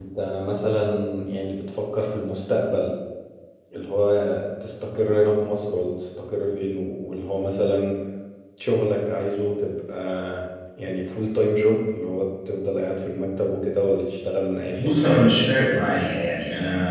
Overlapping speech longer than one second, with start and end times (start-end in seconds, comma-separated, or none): 14.8-16.0